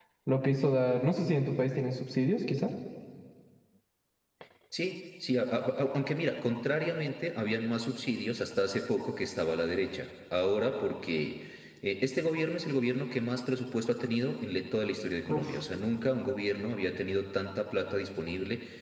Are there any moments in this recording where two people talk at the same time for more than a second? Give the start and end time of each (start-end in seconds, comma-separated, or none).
none